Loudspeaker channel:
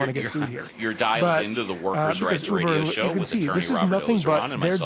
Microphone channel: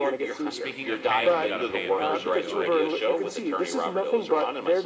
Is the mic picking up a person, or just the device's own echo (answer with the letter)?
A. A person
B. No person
A